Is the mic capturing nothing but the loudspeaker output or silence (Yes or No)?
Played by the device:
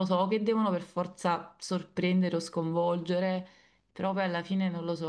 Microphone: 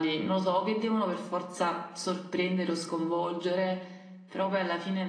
Yes